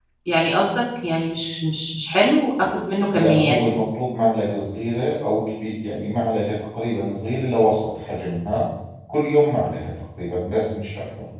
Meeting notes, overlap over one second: none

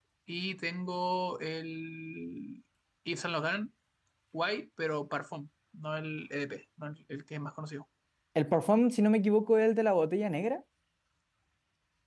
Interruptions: none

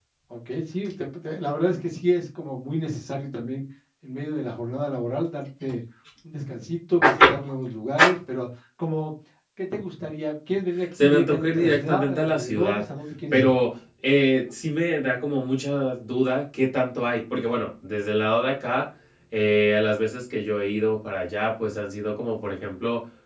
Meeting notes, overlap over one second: present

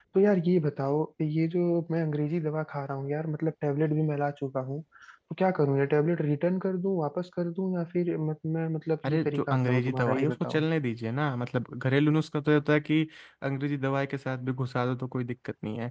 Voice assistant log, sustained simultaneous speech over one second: present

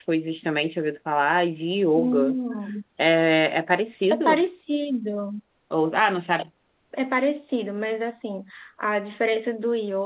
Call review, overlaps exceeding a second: none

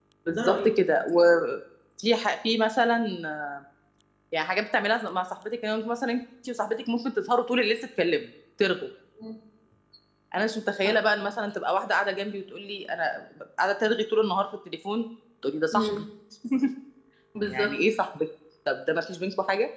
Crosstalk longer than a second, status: none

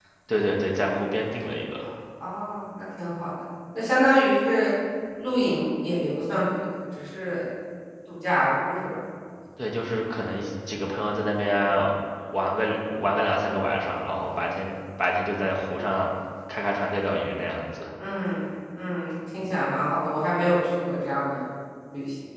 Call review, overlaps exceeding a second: none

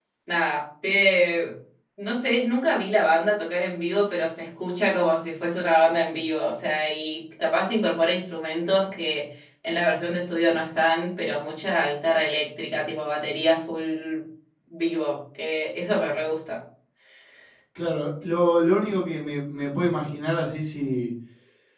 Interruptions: none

